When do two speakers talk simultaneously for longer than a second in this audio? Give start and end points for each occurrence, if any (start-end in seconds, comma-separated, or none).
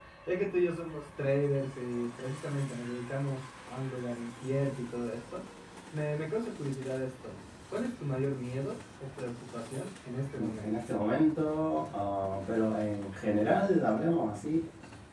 none